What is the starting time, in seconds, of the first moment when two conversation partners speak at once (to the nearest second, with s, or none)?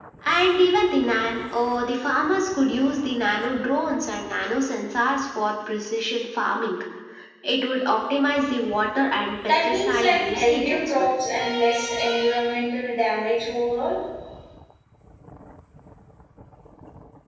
9 s